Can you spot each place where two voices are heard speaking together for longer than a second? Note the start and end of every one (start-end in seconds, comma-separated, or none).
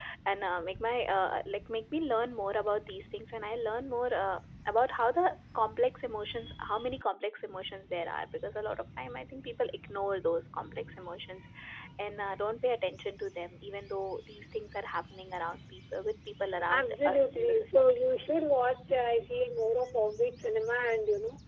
16.7-18.1